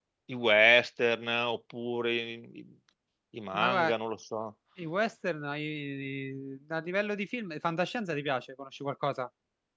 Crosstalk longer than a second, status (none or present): none